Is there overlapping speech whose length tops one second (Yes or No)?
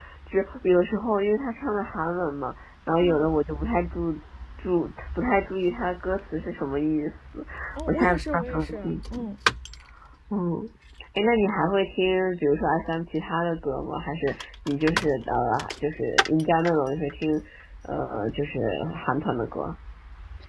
Yes